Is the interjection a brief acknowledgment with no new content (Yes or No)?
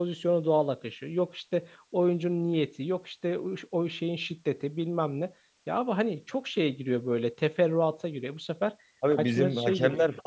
No